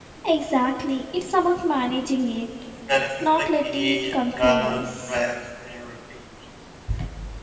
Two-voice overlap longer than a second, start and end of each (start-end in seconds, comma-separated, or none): 3.2-5.2